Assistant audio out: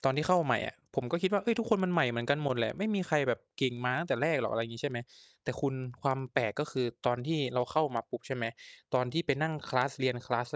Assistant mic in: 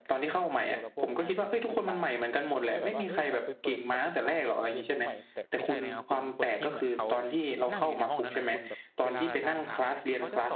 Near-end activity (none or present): present